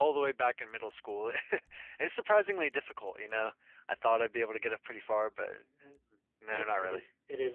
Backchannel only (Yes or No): No